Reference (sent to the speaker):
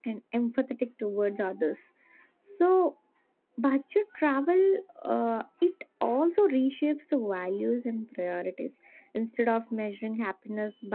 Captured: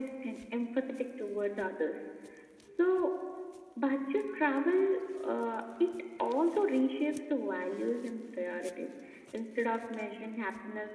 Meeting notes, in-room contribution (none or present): none